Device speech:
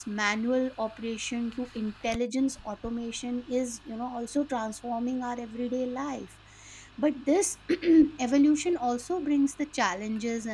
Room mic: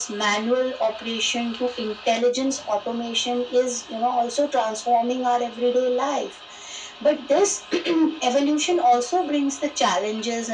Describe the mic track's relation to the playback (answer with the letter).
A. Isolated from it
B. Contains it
B